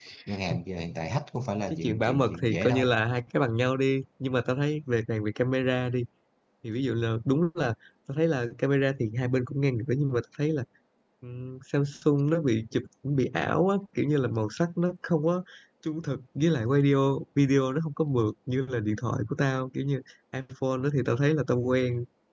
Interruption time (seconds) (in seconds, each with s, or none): 1.7 s